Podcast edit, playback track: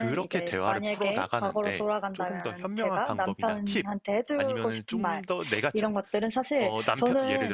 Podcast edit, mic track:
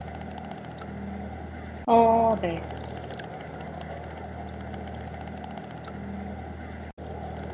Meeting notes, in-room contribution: present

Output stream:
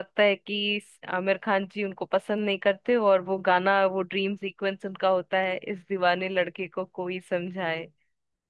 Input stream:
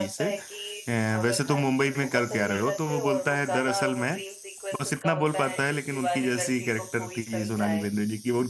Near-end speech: present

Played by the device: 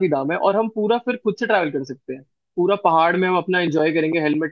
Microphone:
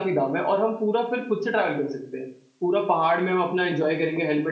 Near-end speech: none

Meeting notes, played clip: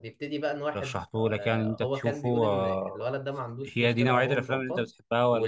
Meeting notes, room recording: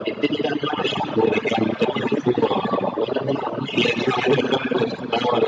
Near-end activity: none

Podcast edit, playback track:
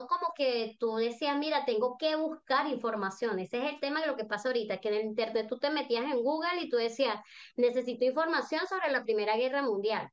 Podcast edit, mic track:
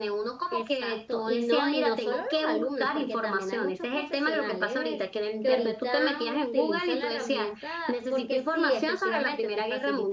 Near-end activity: present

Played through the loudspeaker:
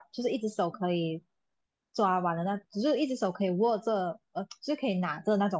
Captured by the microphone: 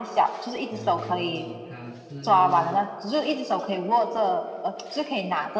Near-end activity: present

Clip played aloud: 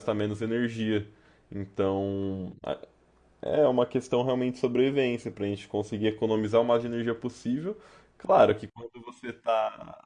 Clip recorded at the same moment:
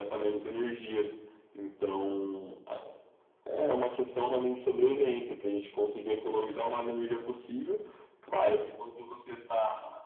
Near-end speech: none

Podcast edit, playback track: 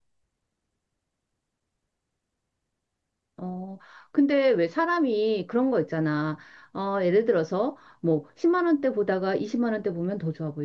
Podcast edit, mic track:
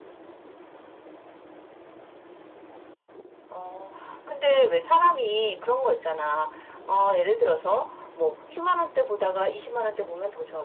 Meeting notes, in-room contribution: none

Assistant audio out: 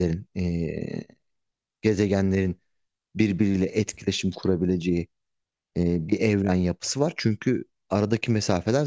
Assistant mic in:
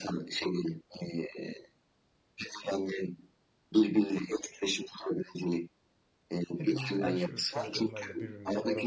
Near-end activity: present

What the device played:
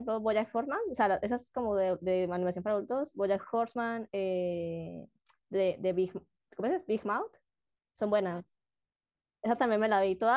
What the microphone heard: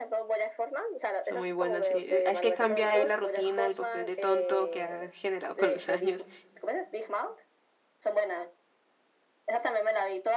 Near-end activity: present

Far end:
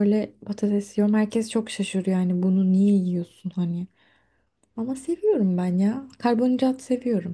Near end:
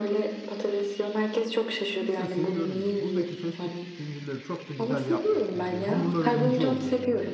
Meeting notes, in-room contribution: present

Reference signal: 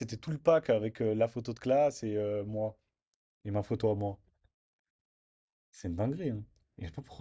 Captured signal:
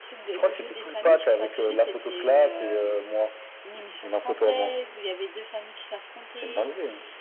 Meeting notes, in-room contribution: present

